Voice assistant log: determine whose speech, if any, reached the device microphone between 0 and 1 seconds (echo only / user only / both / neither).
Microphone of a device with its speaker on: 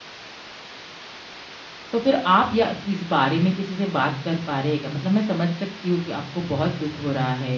neither